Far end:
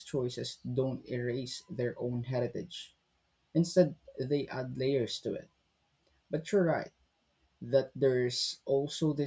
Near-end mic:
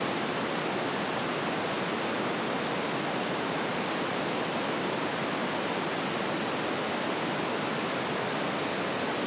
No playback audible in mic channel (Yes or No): Yes